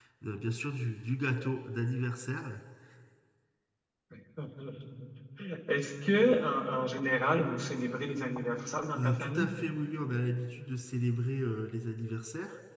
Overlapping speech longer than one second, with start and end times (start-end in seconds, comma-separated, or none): none